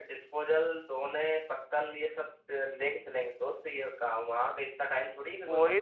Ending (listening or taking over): taking over